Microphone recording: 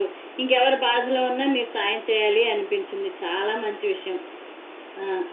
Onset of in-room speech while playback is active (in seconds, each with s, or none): none